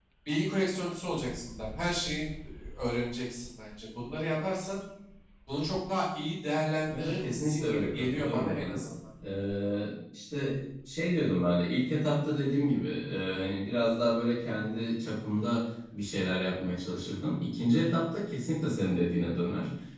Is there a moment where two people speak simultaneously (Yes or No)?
Yes